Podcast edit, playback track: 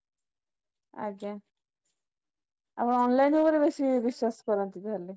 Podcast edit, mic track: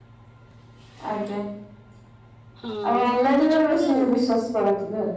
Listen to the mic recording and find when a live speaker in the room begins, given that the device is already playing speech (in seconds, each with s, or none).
2.6 s